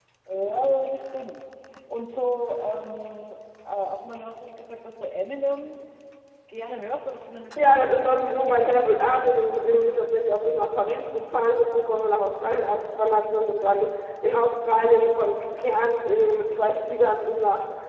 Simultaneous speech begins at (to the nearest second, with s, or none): 8 s